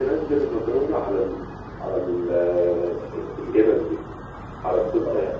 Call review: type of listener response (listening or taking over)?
taking over